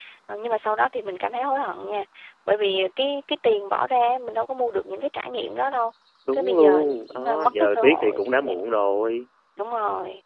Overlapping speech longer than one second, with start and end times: 6.3-8.6

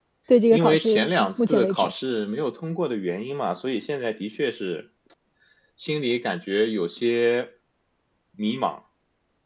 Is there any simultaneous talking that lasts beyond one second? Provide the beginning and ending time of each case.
0.5-1.9

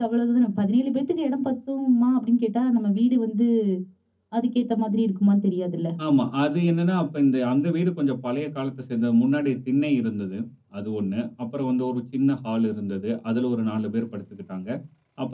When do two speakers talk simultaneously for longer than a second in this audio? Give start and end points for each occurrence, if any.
none

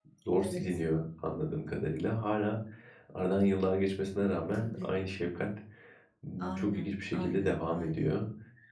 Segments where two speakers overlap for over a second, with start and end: 6.4-8.1

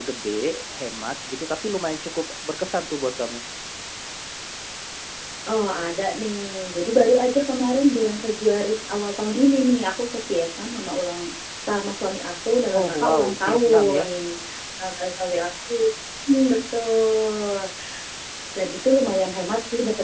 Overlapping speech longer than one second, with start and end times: 12.7-14.1

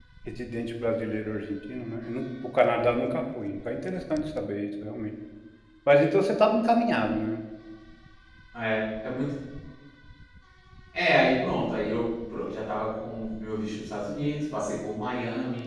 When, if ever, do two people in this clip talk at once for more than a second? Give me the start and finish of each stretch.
none

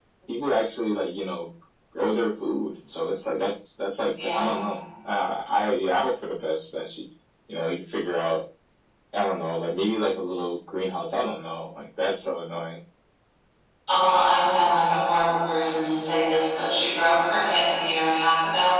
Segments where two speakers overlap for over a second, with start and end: none

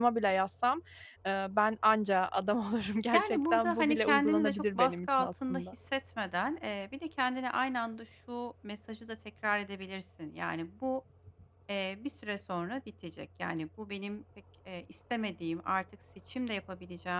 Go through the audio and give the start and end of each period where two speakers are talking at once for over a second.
3.1-5.6

